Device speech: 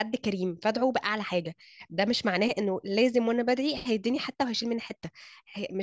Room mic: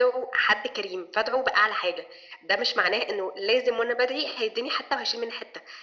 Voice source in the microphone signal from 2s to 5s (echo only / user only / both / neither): echo only